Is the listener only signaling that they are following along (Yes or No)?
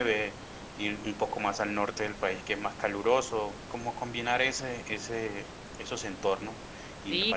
No